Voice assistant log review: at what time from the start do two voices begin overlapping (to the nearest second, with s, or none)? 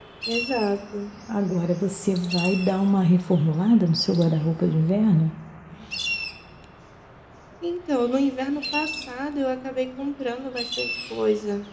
none